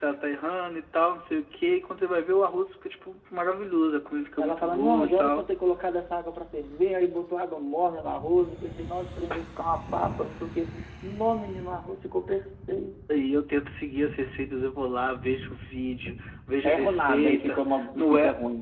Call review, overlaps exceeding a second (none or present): present